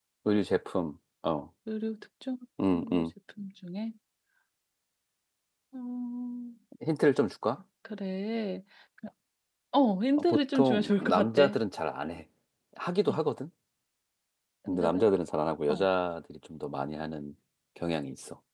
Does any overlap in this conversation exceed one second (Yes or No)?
Yes